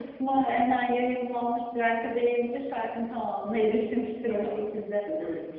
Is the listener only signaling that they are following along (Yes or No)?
No